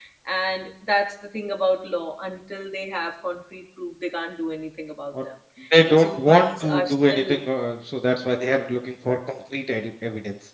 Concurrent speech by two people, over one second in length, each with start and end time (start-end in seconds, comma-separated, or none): 5.8-7.4